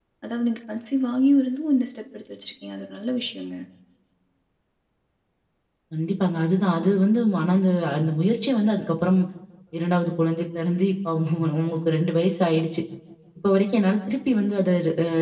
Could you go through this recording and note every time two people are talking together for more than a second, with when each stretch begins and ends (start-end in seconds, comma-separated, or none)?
none